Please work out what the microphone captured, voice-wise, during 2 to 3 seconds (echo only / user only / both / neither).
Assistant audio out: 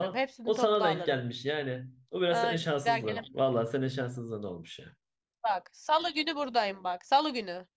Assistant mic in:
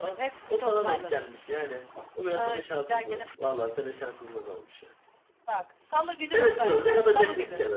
echo only